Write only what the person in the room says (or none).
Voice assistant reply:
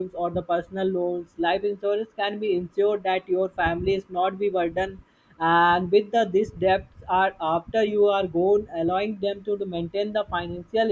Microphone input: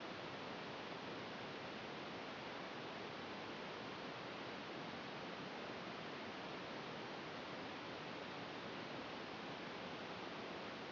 none